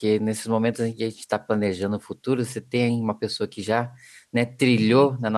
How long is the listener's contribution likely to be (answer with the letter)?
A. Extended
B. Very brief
B